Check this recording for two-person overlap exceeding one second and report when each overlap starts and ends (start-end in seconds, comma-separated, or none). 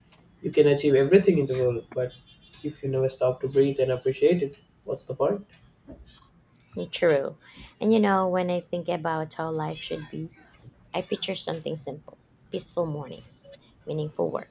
none